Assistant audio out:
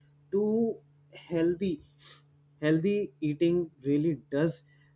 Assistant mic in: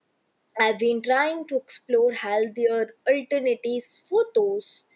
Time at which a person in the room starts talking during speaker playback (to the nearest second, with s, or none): 1 s